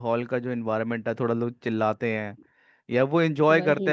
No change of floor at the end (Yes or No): Yes